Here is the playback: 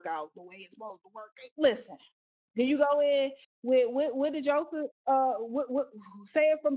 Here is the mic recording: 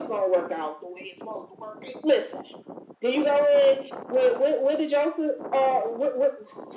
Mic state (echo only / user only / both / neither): echo only